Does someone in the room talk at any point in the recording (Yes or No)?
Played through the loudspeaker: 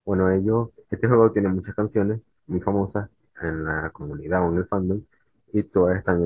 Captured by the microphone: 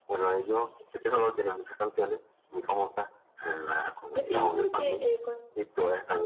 Yes